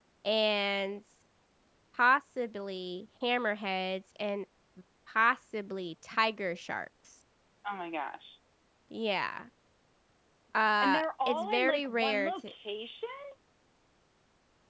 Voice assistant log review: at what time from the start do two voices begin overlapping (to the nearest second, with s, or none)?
11 s